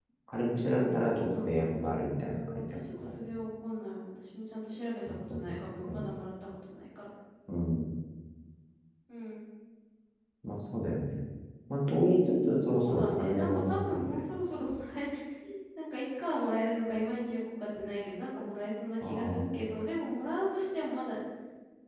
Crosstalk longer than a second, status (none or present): present